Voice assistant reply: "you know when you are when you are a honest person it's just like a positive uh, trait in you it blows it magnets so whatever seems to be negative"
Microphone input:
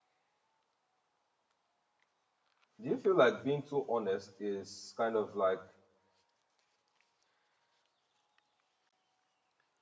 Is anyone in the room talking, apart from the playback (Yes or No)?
Yes